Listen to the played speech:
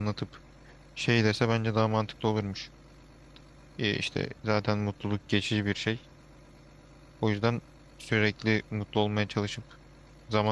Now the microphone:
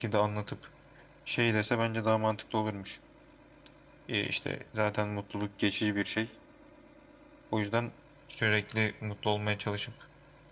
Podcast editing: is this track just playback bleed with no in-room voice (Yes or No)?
Yes